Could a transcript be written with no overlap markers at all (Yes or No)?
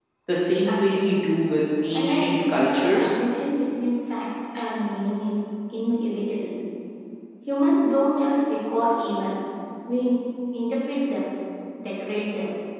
No